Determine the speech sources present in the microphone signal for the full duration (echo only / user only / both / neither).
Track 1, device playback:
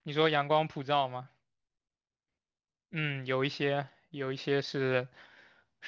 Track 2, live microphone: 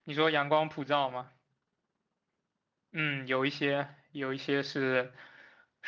echo only